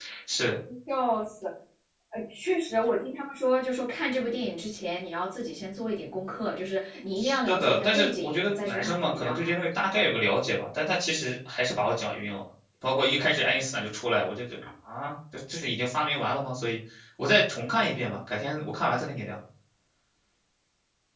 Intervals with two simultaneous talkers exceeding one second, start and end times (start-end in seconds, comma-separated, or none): 7.2-9.5